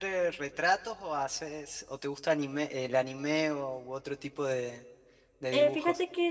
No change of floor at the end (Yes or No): No